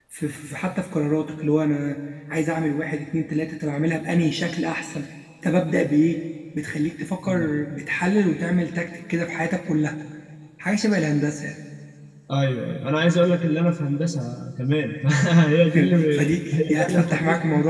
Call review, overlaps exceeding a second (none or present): present